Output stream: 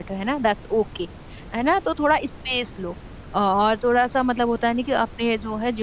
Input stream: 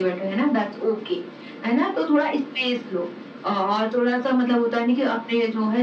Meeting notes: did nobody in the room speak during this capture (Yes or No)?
Yes